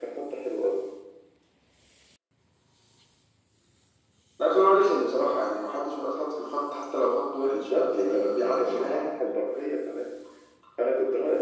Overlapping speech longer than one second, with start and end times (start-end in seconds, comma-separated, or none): 7.5-9.1